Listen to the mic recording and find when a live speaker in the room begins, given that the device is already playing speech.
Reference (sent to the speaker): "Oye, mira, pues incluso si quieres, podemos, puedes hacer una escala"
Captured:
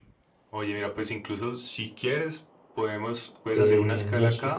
3.5 s

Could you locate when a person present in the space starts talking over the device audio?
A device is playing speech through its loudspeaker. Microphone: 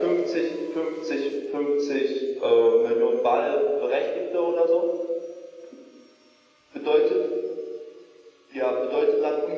none

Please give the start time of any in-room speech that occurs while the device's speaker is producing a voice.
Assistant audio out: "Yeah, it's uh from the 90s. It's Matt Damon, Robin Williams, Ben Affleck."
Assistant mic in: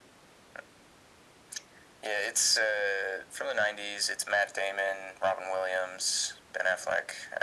none

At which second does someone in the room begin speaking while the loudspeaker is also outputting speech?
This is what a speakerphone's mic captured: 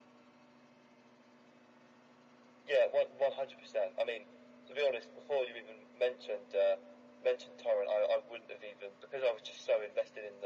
none

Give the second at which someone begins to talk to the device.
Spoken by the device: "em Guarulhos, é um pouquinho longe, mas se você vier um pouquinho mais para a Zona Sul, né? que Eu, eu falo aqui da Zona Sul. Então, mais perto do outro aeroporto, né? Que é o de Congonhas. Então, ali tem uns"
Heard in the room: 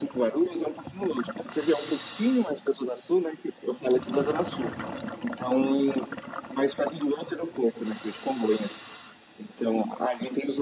none

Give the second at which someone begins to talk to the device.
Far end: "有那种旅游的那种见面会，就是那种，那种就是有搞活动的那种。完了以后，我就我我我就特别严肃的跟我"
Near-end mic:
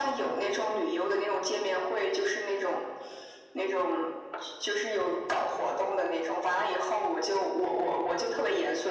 none

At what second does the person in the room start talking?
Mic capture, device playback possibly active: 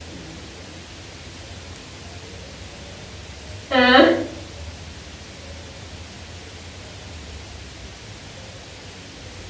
3.7 s

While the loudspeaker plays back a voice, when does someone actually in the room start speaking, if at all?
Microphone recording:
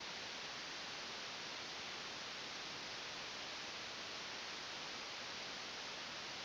none

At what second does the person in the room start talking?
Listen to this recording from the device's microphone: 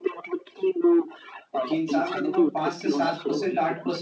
1.7 s

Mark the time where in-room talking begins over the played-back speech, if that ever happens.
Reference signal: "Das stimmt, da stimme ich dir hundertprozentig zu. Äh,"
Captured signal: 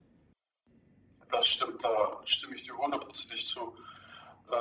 none

